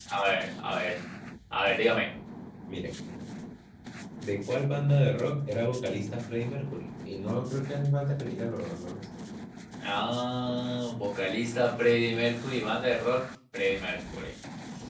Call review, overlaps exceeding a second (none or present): none